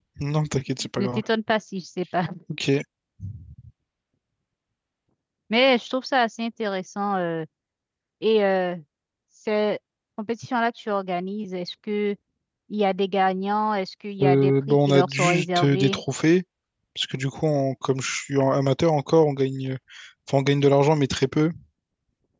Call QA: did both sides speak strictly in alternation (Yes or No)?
No